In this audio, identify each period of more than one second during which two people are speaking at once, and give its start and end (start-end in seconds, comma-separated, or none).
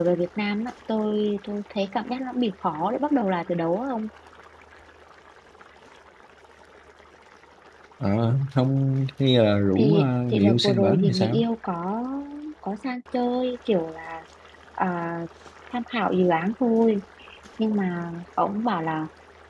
9.8-11.4